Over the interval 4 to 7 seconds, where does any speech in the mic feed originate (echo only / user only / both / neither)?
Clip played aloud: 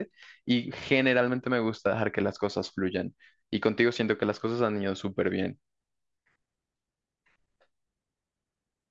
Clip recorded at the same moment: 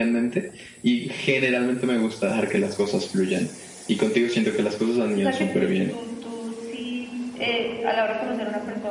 both